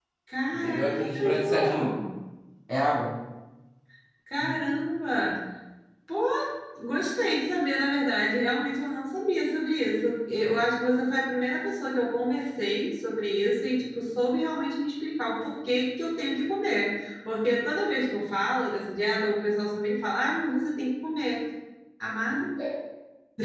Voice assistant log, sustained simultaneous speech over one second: present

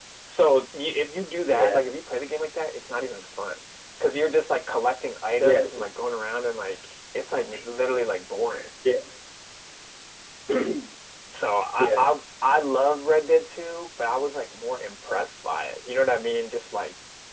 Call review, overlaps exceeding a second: none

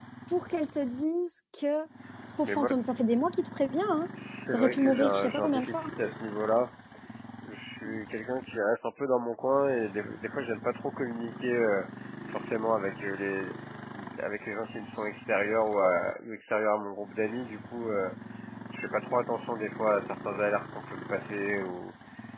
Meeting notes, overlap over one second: present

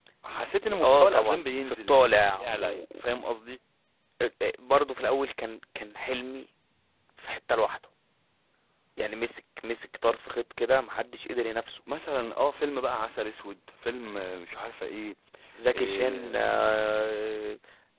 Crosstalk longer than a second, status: present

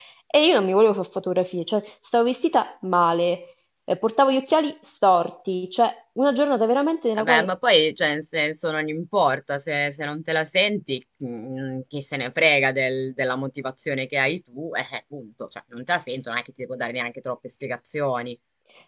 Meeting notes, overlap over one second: none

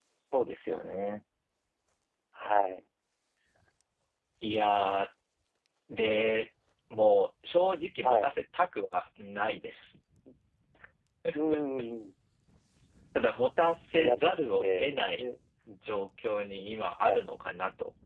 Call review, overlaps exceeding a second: present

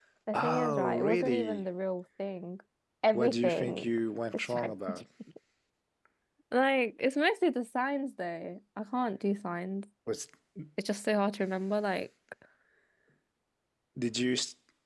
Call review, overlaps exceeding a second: present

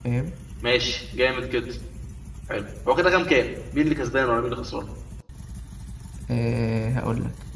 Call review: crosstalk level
none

